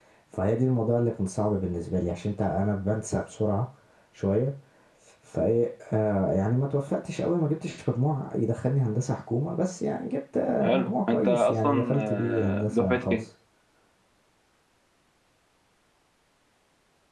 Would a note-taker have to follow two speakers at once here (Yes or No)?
Yes